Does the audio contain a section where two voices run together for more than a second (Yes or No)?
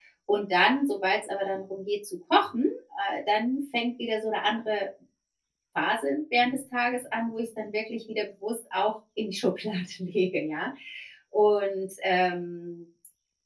No